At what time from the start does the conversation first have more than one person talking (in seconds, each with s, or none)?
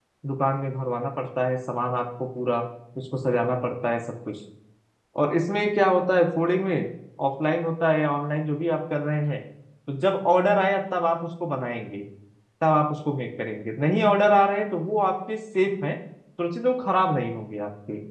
none